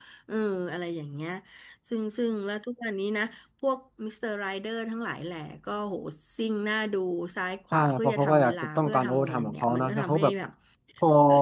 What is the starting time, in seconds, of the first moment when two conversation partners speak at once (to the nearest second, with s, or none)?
8 s